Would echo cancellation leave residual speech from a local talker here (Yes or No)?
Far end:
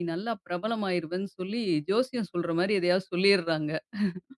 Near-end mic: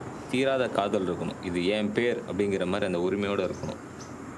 Yes